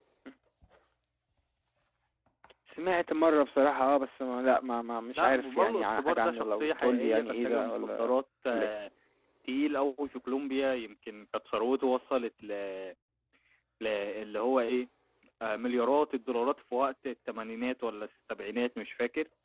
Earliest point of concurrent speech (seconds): 5.1 s

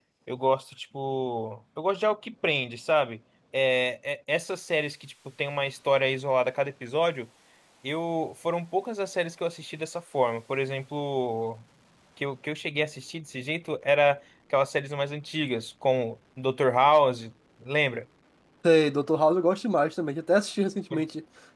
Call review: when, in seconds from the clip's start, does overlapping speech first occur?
none

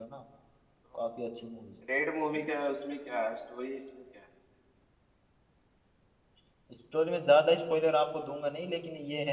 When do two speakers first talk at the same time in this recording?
none

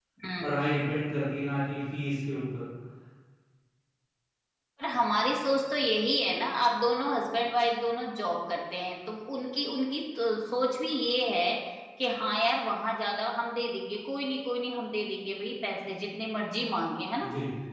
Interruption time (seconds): none

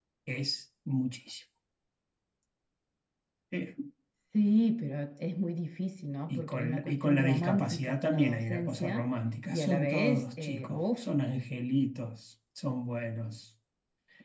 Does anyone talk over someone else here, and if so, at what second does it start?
6.3 s

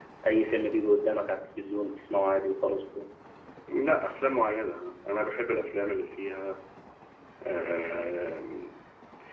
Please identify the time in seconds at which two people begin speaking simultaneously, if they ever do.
none

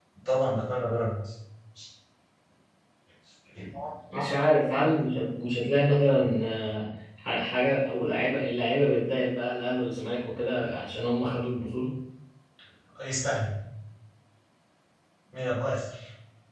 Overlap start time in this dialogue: none

